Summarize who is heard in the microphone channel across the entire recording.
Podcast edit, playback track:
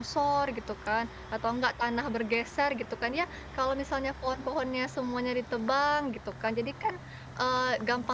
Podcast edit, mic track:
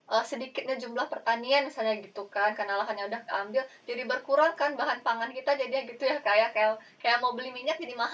user only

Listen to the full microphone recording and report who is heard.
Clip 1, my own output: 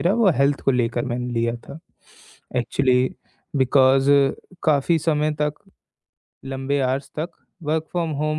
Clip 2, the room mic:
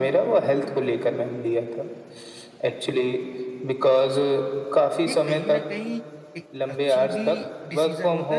both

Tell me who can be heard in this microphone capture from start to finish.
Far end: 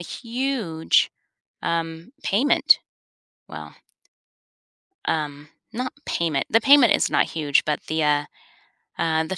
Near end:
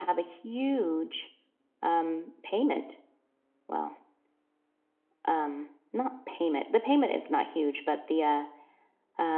echo only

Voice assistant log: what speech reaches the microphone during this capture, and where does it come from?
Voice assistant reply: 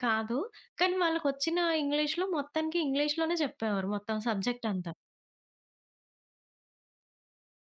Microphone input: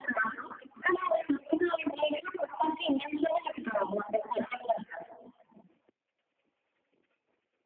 echo only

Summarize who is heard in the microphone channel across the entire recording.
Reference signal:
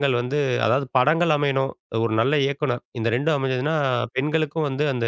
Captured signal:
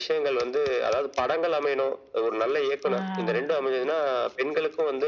both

